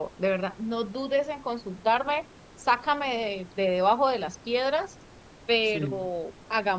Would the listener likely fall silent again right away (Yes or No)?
Yes